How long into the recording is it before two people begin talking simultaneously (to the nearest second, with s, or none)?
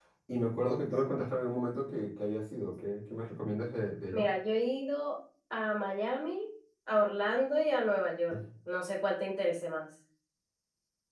none